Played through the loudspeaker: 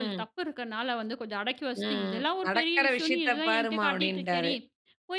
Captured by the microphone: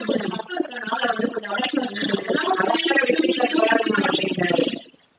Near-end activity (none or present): none